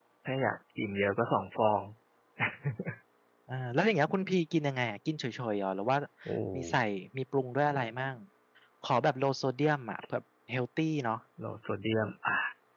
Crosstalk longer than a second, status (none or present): none